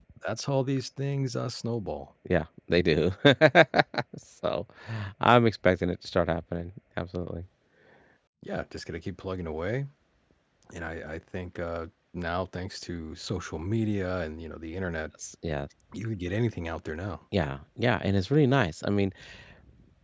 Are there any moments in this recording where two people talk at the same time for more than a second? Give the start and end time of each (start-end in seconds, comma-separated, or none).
none